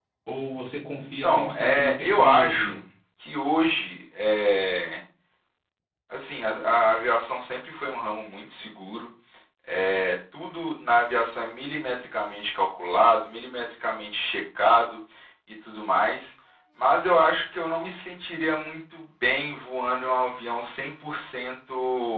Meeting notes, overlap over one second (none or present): present